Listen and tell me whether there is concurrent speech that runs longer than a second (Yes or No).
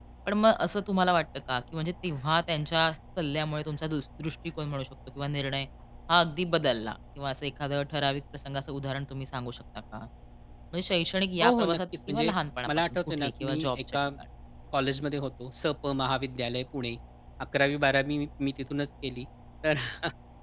Yes